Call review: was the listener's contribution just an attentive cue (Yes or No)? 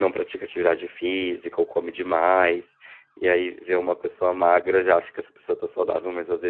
Yes